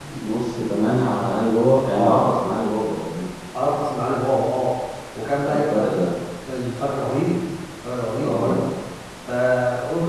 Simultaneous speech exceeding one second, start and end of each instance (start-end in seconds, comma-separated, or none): none